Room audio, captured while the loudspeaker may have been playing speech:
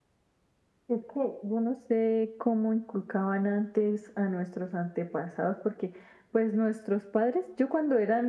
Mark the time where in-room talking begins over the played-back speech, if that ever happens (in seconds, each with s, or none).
none